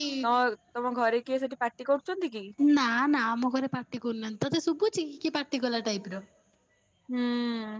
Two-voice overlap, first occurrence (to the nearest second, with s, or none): none